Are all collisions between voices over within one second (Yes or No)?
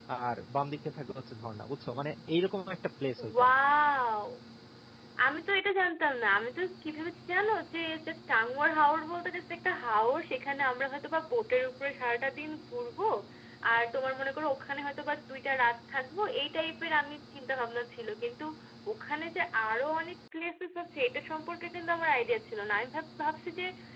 Yes